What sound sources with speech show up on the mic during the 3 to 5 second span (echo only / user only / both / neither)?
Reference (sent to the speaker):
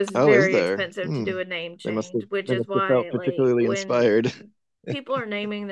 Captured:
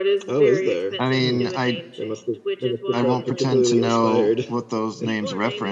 both